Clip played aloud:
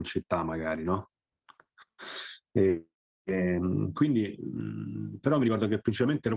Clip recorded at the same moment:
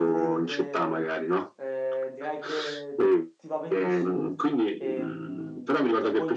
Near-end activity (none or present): present